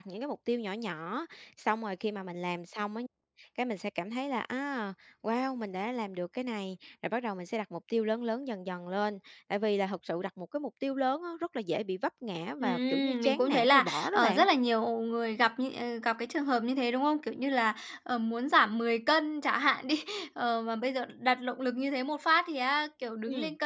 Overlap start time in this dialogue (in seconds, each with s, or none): 12.6 s